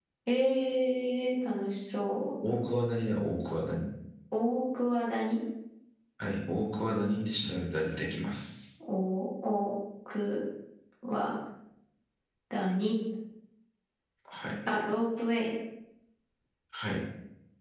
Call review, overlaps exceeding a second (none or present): none